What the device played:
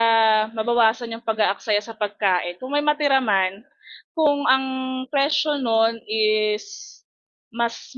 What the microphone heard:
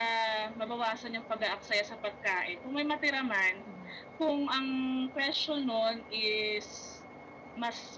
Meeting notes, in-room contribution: none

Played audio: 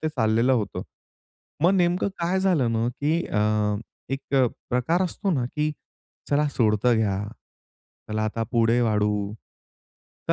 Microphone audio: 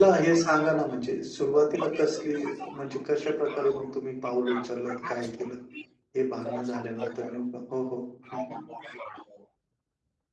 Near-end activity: present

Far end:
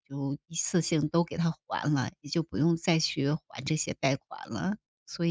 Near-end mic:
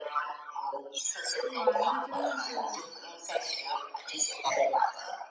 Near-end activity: present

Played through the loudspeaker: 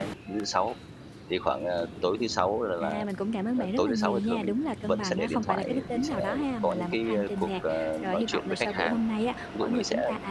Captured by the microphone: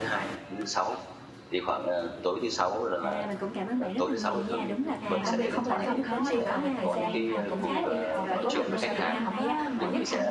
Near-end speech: present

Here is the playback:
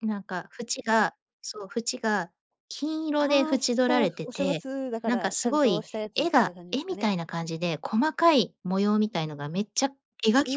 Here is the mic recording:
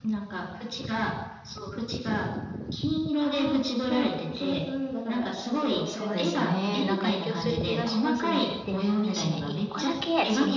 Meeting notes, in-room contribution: present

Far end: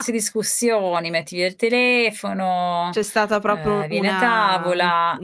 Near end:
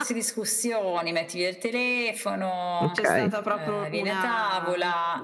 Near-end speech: present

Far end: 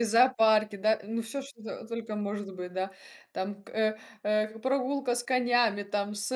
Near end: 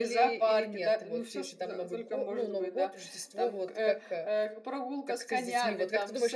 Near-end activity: present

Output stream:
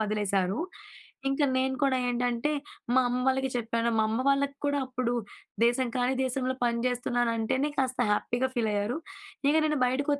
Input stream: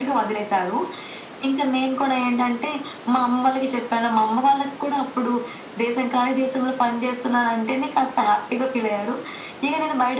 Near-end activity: none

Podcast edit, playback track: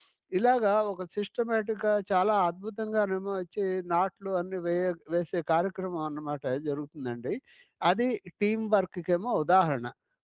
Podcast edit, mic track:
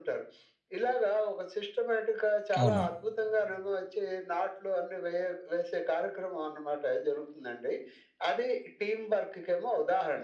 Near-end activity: present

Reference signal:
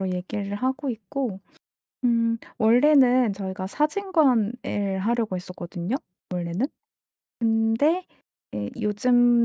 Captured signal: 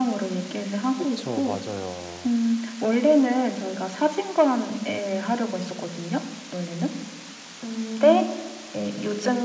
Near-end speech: present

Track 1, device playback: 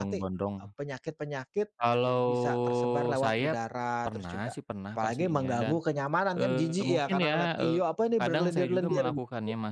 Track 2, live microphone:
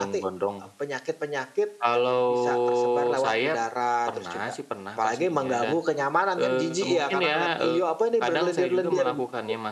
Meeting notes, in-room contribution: none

